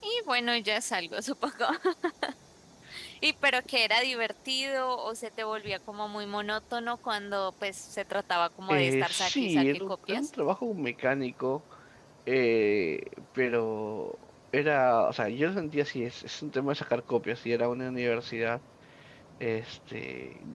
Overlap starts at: 8.7 s

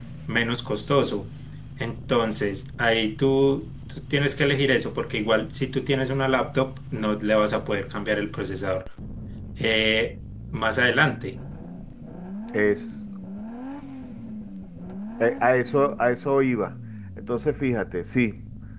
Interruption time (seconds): none

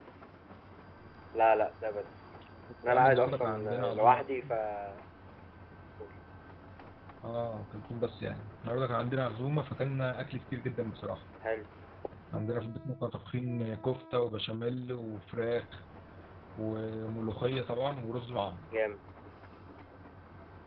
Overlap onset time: 2.9 s

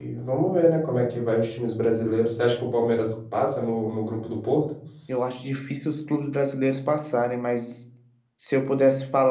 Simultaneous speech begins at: none

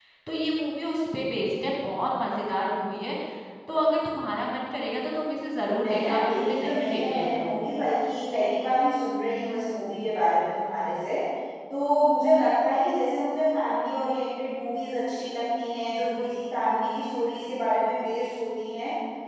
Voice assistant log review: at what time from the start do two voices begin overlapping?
5.8 s

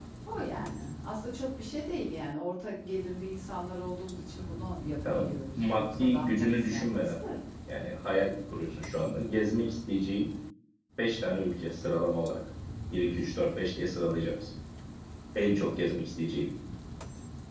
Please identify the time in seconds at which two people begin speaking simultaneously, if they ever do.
5.0 s

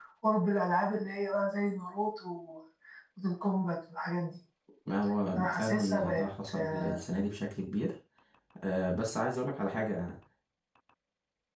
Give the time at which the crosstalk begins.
5.4 s

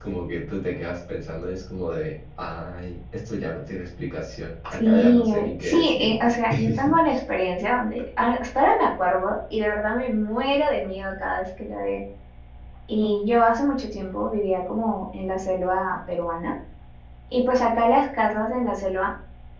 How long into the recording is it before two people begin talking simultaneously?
4.6 s

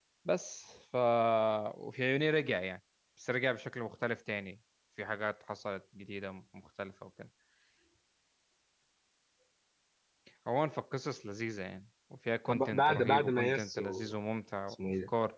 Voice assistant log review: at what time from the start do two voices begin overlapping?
12.5 s

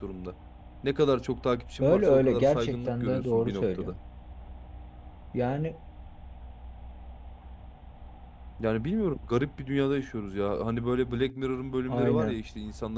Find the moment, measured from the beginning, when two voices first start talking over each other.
1.8 s

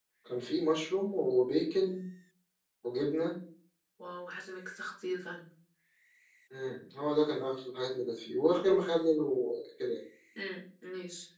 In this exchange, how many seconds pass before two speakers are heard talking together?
none

